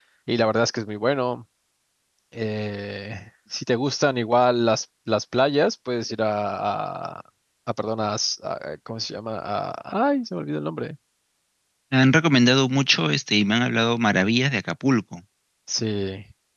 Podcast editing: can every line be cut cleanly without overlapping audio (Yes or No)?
Yes